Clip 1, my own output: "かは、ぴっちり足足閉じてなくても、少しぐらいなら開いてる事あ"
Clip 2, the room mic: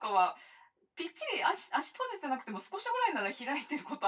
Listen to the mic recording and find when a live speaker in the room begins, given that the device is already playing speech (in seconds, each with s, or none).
none